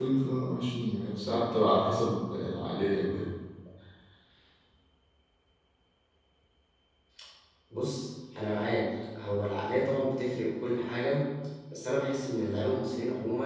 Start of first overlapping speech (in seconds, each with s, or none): none